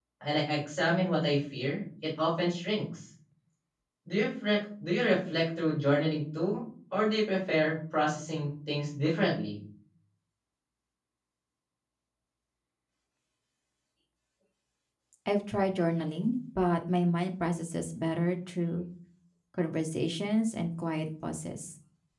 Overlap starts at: none

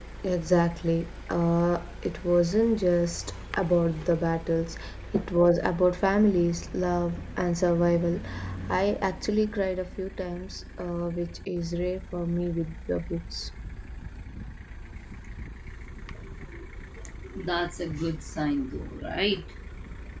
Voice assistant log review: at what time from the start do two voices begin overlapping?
none

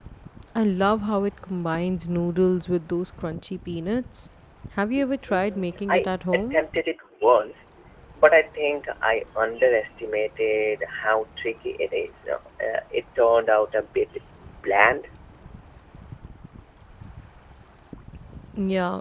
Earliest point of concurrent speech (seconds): 5.3 s

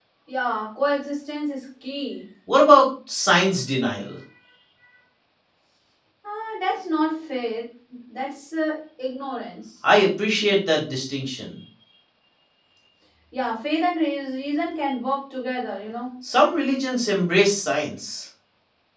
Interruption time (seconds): none

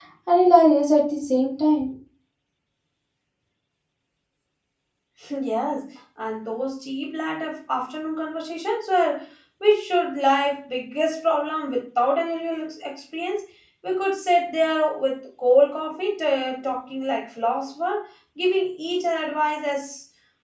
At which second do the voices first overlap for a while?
none

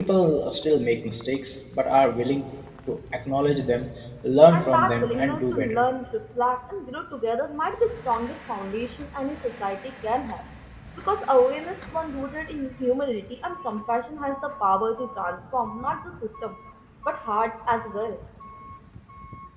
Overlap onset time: 4.5 s

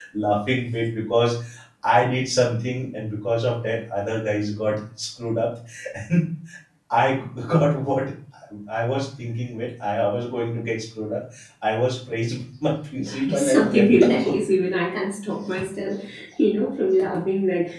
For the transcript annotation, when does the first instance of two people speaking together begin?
13.0 s

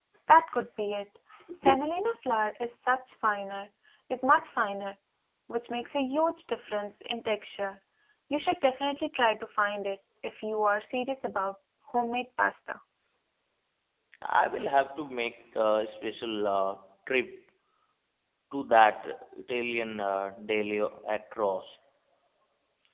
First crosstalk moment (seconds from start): none

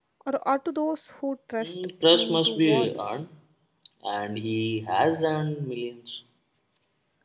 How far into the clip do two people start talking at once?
1.6 s

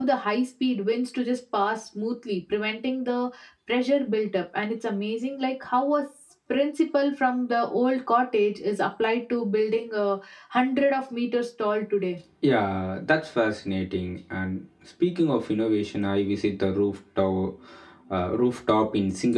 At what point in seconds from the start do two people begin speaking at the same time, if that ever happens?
none

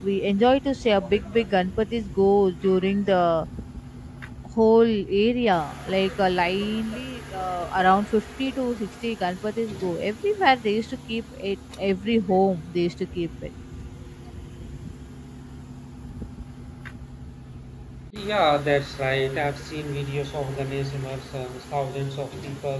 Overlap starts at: none

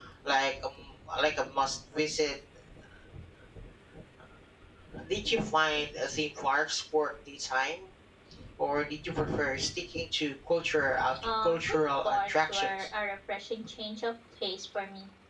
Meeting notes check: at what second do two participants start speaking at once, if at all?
11.2 s

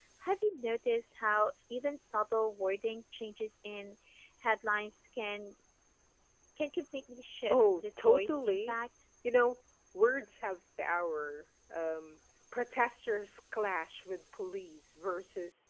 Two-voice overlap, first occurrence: 7.5 s

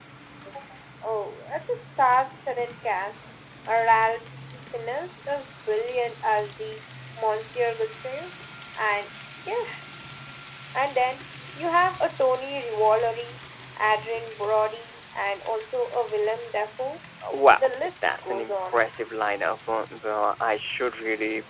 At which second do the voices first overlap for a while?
17.6 s

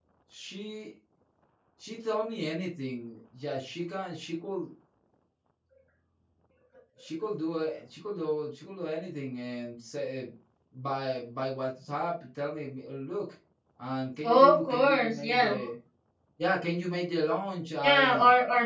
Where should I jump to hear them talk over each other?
14.2 s

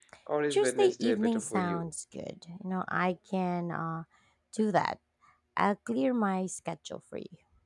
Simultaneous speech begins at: 0.5 s

